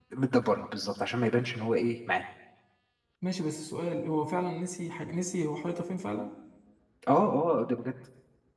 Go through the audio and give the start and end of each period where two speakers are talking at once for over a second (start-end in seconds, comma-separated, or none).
none